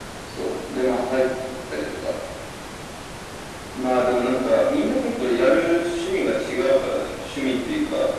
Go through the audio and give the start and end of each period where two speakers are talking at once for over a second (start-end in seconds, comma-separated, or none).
none